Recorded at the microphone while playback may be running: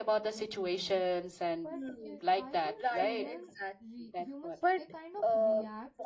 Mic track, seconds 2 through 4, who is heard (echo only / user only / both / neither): both